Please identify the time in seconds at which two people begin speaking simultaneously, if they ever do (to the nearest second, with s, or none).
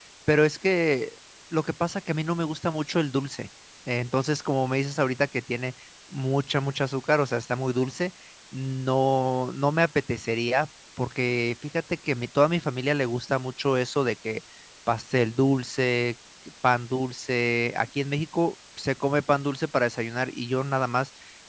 none